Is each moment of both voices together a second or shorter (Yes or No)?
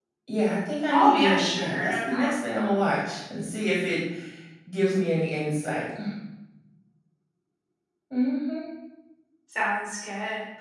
No